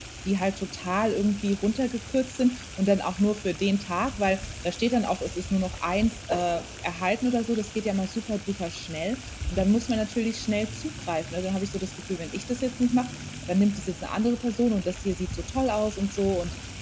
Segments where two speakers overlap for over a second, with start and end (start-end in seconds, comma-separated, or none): none